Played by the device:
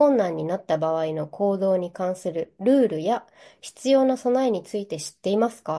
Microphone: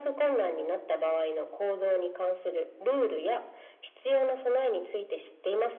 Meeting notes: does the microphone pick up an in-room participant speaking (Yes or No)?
No